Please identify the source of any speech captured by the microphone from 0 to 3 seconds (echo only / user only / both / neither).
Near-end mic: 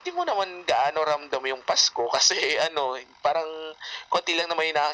echo only